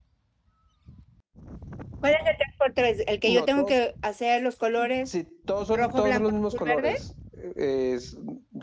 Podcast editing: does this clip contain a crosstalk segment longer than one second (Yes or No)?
Yes